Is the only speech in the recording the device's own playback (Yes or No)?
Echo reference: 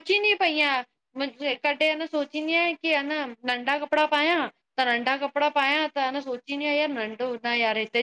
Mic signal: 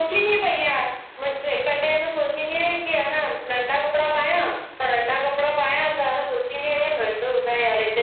Yes